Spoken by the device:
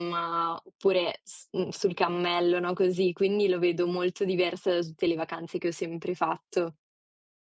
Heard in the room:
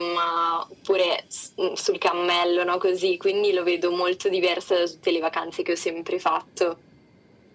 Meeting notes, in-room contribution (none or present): none